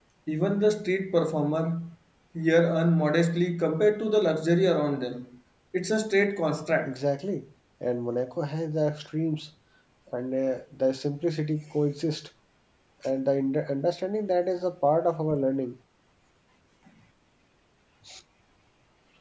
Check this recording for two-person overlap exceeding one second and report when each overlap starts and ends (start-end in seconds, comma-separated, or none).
none